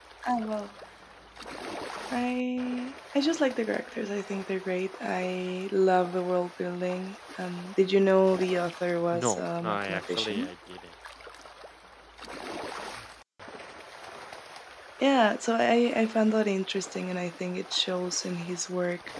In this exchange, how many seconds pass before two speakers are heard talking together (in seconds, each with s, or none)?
9.1 s